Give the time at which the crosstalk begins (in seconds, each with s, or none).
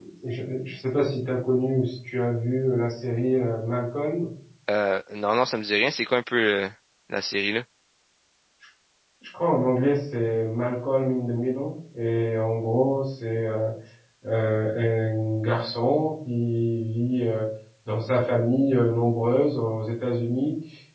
none